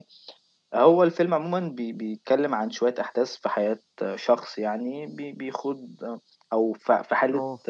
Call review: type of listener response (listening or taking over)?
listening